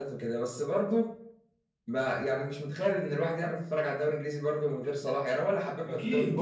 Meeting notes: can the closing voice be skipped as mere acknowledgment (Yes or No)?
No